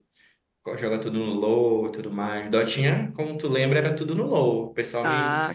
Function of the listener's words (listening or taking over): listening